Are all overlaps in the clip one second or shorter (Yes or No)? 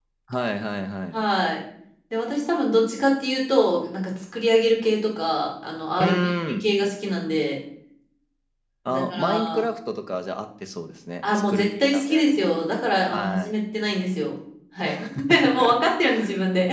No